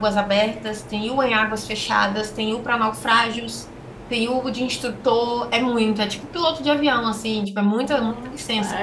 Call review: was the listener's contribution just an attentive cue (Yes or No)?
No